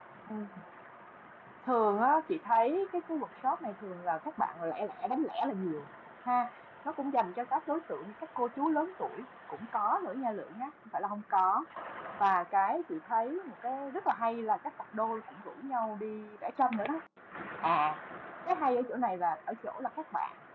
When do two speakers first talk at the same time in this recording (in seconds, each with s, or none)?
none